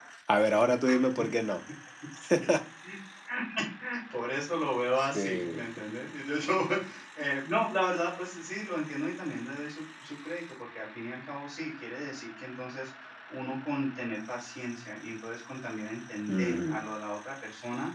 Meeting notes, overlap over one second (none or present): none